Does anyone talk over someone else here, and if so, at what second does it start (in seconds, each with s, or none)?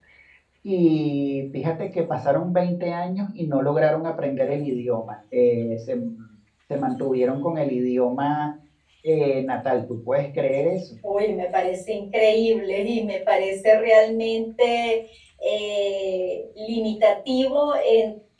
none